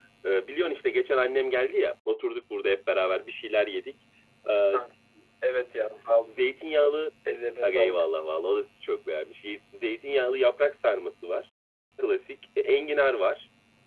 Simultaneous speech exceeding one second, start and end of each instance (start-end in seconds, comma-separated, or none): none